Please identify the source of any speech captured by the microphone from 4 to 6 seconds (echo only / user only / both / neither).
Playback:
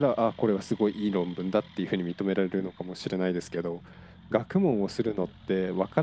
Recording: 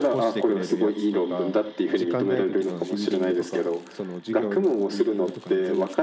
both